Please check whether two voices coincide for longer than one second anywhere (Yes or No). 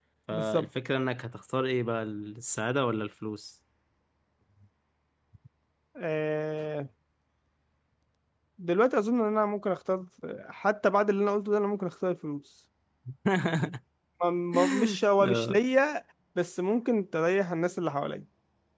No